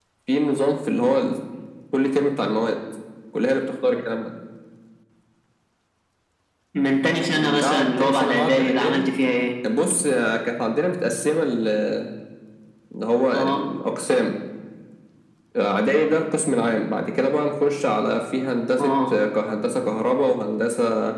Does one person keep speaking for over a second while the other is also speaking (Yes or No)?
Yes